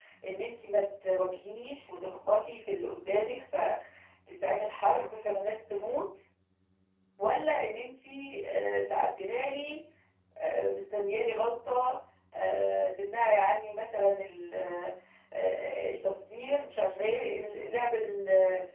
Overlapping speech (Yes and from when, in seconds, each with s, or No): No